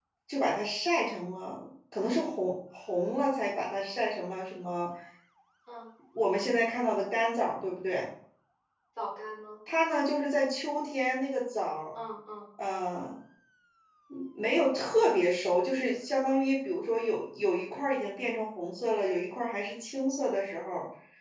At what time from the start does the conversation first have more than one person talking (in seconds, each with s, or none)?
none